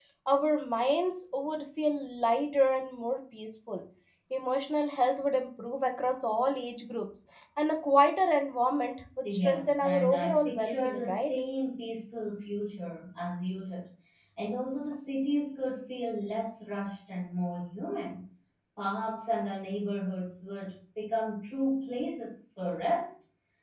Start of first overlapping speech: 9.2 s

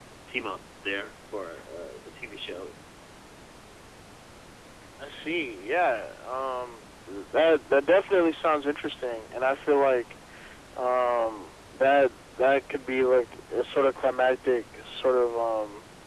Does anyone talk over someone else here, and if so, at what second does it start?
none

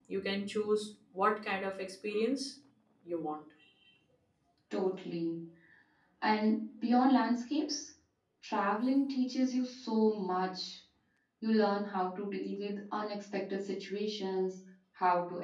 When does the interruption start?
none

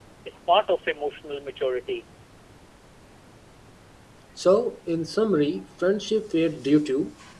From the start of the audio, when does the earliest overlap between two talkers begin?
none

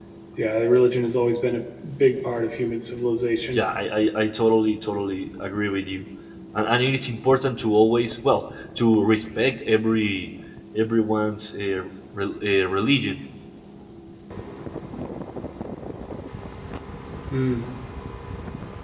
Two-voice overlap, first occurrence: none

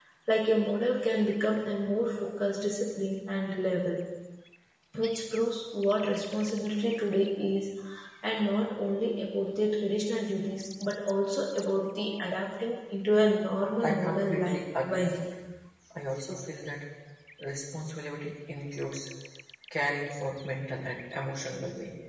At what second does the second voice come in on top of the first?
13.8 s

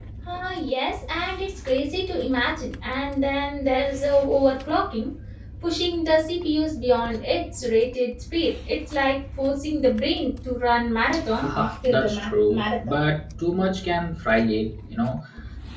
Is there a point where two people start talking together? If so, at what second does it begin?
11.3 s

